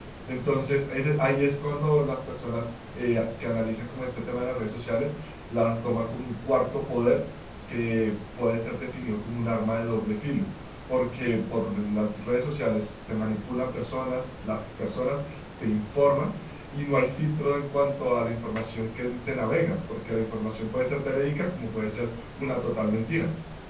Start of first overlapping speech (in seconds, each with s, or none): none